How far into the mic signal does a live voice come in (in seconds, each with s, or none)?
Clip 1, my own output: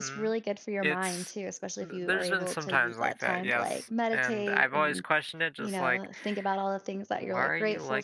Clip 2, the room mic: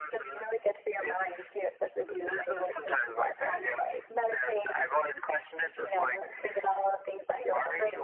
none